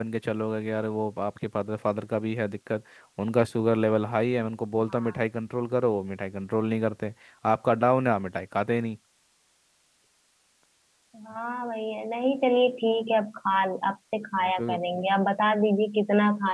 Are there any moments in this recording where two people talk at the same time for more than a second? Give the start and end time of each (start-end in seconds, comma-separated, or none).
none